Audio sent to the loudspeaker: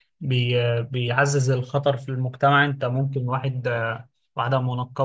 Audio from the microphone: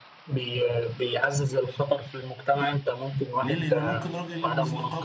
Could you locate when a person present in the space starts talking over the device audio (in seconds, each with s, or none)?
3.4 s